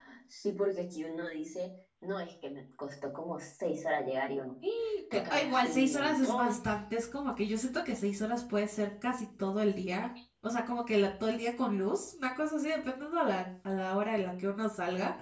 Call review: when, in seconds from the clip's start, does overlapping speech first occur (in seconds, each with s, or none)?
5.3 s